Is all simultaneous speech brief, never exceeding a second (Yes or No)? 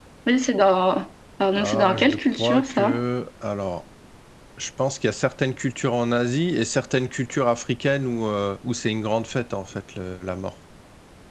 No